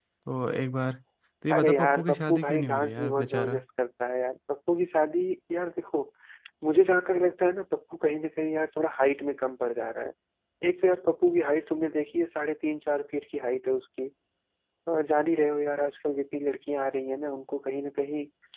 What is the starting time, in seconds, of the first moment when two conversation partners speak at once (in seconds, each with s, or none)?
1.5 s